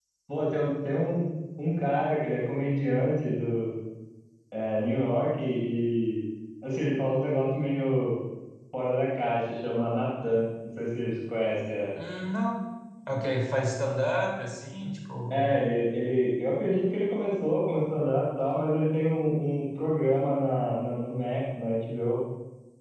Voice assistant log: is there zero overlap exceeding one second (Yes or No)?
Yes